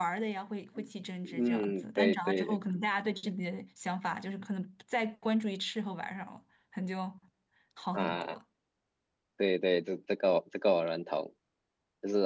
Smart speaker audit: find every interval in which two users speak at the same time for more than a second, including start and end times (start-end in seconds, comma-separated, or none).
1.2-2.6